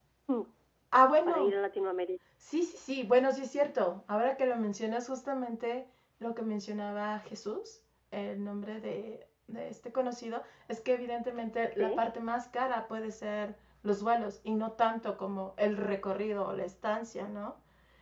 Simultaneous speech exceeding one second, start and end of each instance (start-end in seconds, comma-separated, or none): none